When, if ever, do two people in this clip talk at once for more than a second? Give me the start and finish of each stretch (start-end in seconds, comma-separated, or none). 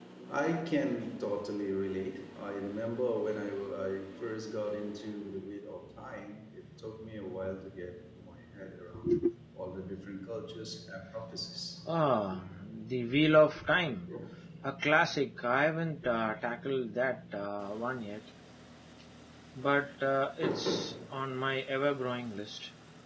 none